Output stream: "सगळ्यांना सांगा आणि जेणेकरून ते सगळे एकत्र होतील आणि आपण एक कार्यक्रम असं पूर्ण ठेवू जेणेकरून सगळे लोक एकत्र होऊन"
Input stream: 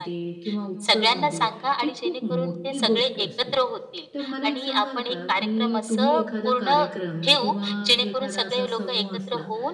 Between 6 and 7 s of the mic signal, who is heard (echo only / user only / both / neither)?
both